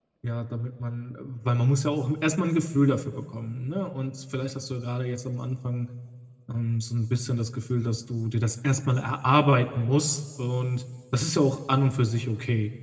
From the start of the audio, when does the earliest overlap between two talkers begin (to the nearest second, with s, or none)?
none